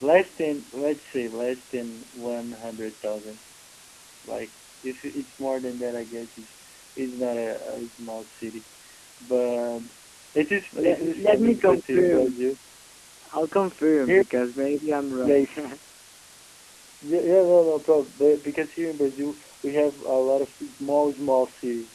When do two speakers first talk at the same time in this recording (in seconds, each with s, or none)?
10.7 s